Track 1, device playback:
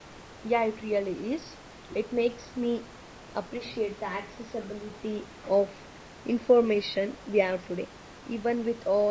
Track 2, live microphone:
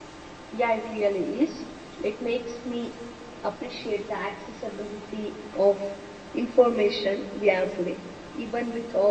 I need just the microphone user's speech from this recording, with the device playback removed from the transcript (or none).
none